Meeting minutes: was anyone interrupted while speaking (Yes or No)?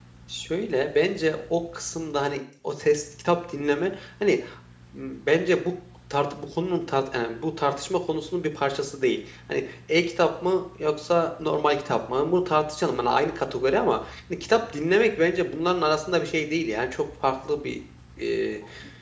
No